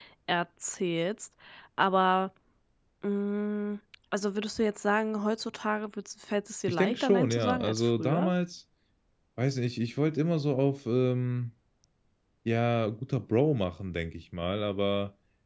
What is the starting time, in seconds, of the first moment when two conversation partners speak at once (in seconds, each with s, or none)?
6.7 s